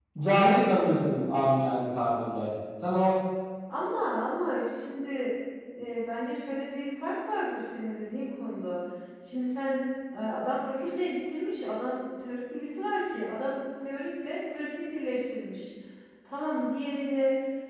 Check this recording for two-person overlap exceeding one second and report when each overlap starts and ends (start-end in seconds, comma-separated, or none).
none